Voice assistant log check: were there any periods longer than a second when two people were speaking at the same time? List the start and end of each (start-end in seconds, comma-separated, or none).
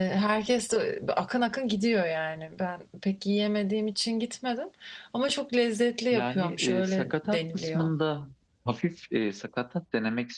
6.1-7.9